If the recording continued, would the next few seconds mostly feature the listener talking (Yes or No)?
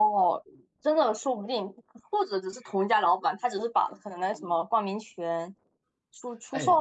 Yes